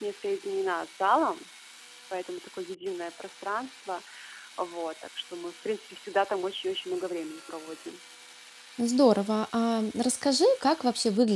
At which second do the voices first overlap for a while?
none

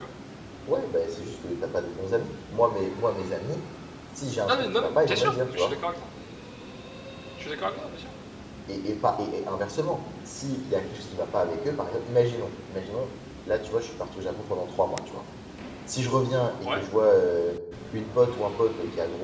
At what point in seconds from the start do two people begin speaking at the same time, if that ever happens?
4.5 s

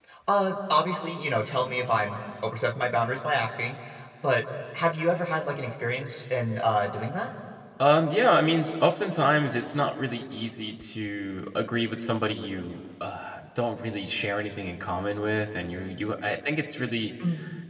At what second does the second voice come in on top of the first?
none

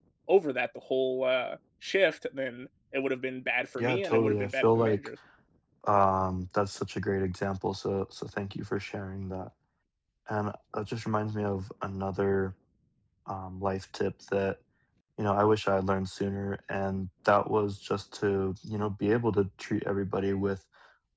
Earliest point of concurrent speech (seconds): 3.8 s

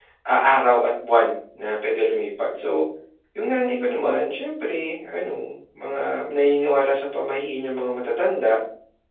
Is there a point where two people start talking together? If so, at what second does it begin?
none

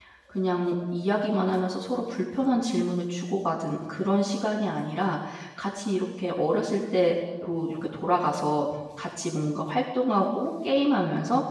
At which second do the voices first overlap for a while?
none

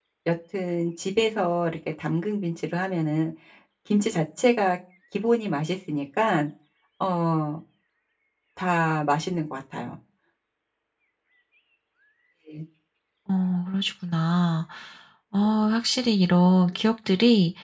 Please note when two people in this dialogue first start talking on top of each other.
none

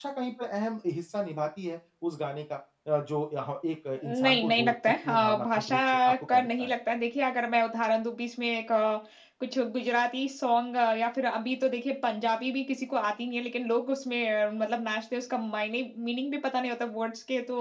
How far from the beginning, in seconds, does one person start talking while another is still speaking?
4.0 s

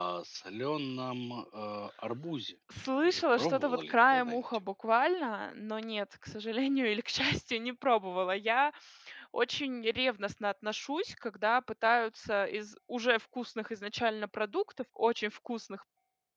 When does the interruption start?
3.0 s

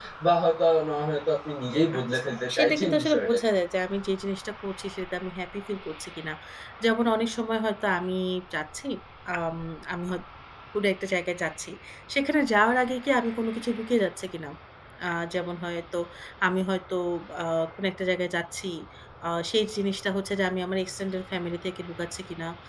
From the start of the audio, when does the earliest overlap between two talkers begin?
1.9 s

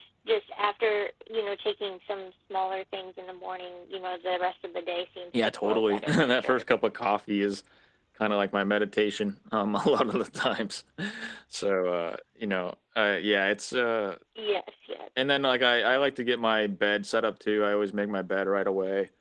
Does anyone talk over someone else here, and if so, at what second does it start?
5.3 s

